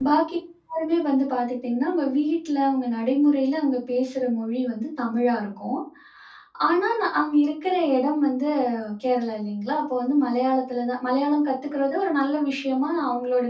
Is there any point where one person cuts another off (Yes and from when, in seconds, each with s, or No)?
No